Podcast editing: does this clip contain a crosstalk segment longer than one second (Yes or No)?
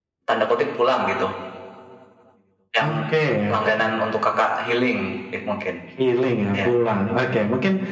No